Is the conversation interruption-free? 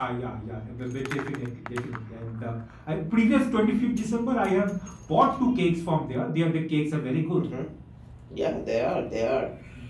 Yes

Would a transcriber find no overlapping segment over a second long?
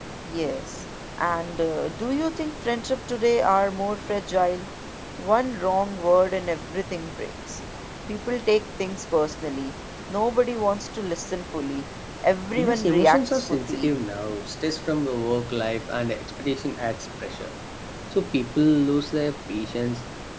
No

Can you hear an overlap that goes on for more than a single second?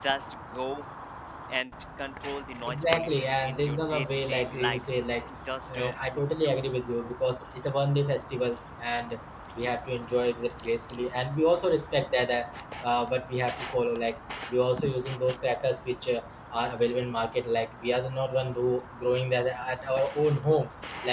Yes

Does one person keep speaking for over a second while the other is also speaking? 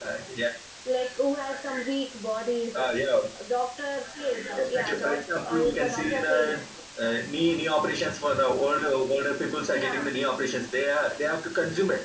Yes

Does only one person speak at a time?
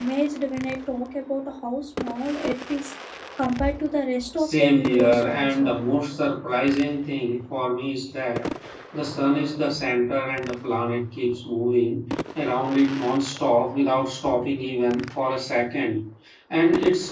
No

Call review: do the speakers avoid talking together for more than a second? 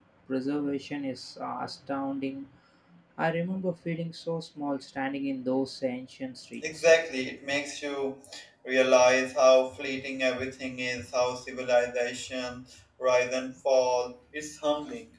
Yes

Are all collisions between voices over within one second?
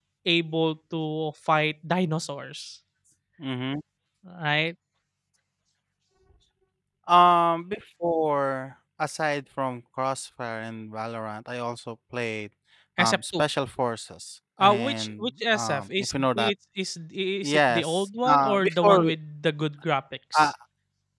No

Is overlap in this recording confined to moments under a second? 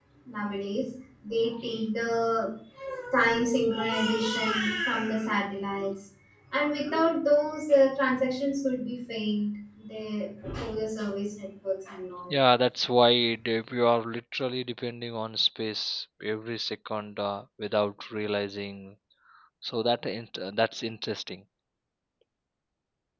Yes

